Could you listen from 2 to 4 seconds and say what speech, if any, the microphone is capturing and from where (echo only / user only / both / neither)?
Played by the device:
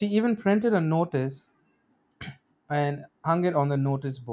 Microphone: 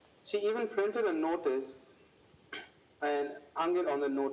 echo only